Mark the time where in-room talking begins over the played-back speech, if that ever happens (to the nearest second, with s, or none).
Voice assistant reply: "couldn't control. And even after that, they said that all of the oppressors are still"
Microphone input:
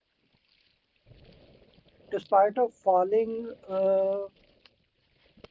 2 s